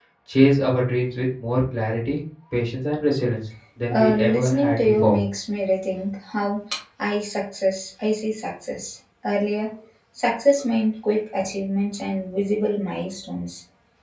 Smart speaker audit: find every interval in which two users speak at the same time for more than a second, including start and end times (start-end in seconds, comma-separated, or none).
3.9-5.2